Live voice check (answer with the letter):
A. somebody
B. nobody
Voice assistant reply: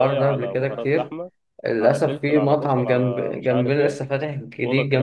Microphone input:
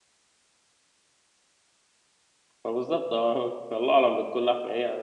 A